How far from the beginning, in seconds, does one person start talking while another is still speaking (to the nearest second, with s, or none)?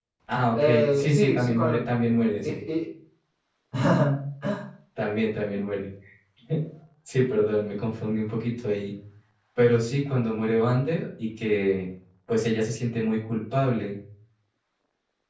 1 s